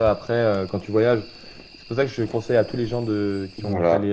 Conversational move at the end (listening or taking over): listening